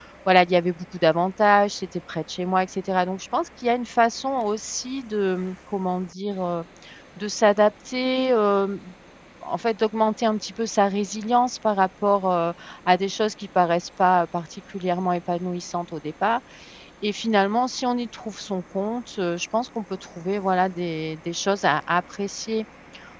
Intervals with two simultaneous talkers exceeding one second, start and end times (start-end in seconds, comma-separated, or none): none